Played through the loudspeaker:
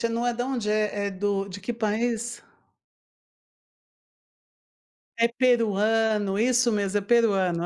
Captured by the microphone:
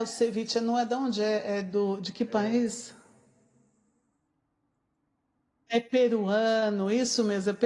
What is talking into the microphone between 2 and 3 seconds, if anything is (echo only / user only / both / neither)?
both